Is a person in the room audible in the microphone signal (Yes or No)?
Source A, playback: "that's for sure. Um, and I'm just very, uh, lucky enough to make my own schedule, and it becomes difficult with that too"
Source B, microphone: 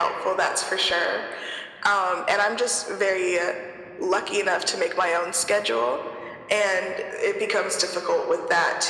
No